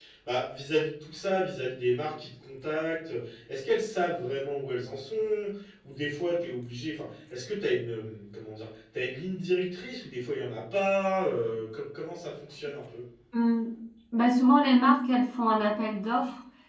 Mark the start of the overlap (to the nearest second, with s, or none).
none